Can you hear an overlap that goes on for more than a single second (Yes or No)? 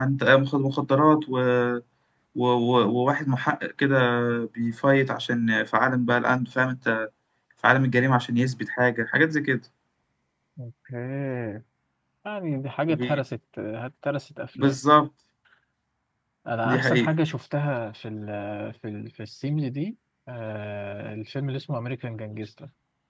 No